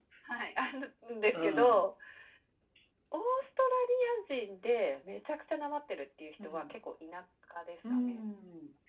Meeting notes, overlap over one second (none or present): none